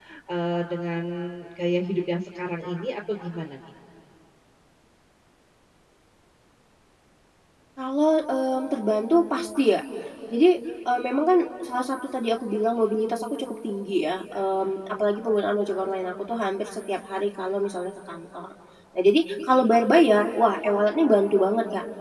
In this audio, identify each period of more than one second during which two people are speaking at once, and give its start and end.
none

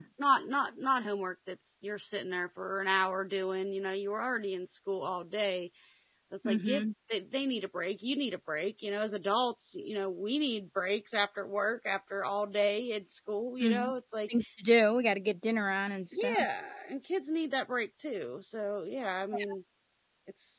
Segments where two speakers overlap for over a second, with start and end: none

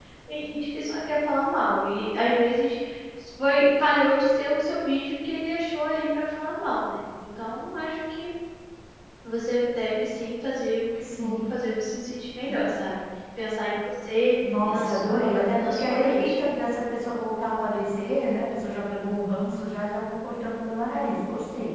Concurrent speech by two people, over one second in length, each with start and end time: 14.7-16.3

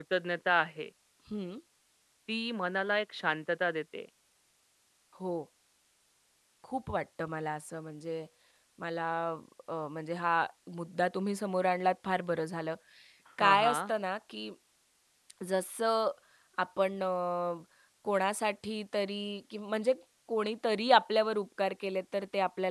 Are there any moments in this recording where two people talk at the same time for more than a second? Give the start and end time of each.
none

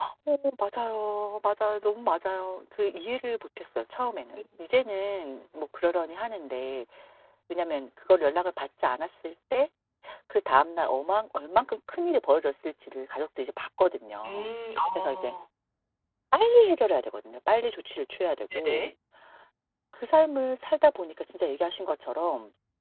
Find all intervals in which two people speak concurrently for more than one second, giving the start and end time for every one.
none

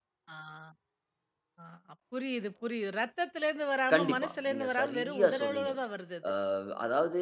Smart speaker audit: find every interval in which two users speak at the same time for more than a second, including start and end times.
3.9-5.7

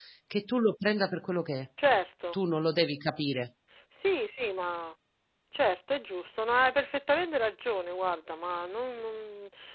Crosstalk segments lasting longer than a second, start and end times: none

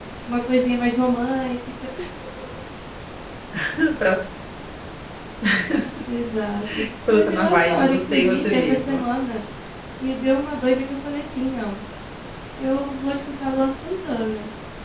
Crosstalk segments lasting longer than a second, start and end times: 7.1-9.0

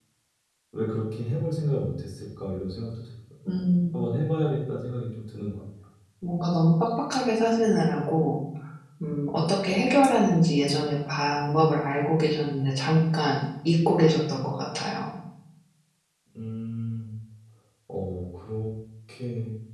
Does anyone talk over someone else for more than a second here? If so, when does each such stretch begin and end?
none

